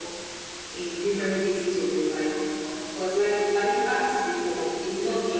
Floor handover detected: No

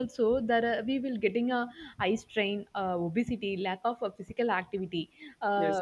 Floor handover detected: No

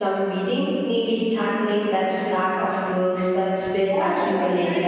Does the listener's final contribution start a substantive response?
Yes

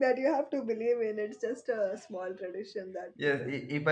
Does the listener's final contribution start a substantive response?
Yes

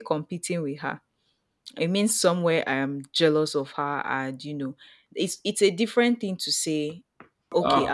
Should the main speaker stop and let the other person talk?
No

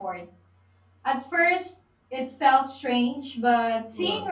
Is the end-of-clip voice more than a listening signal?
No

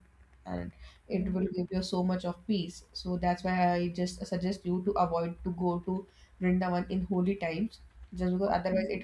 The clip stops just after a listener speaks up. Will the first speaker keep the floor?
Yes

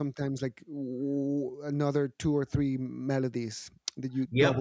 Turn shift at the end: Yes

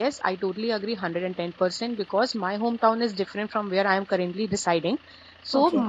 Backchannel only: Yes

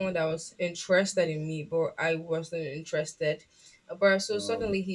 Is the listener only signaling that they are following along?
Yes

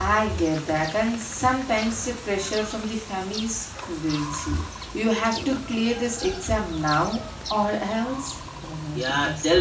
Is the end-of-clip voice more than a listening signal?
Yes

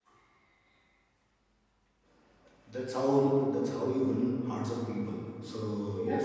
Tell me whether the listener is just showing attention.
Yes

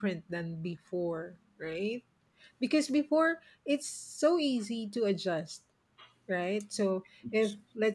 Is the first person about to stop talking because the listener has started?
No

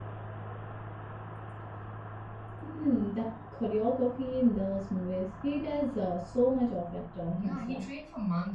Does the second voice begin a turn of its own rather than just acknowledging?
Yes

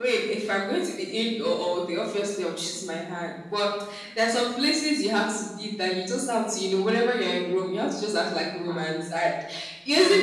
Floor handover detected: No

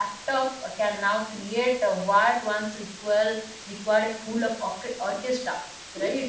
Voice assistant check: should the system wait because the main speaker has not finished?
Yes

